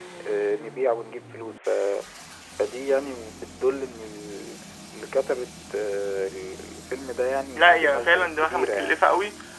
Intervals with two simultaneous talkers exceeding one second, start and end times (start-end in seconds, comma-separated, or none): 7.6-9.0